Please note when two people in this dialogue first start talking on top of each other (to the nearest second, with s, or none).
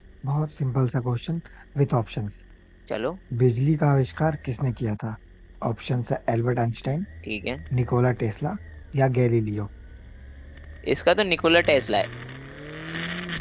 none